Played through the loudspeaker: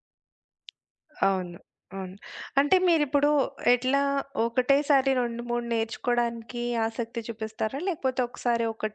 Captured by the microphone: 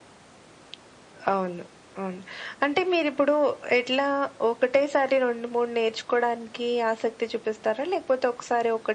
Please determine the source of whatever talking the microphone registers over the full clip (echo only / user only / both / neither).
echo only